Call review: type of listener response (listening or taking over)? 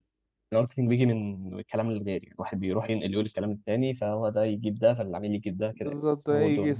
taking over